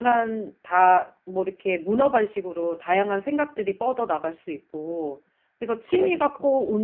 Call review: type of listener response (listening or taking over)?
listening